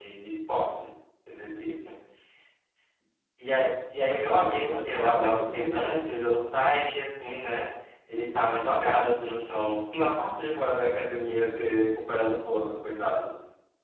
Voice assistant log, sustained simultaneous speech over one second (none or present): present